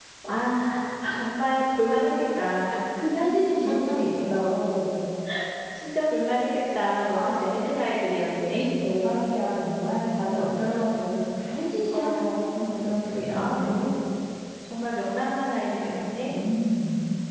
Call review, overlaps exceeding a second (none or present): none